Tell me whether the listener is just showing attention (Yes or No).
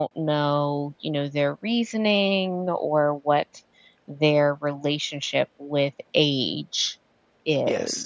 No